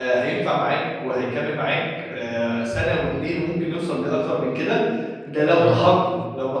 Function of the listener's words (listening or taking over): listening